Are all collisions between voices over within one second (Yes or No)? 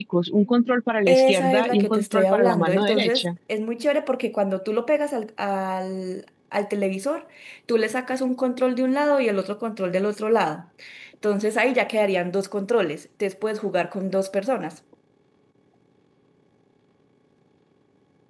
No